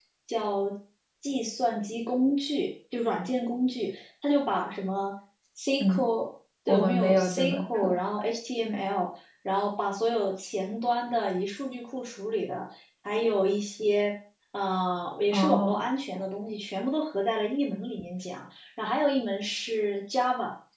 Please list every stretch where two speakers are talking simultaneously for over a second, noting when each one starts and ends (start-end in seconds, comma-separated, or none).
6.7-7.9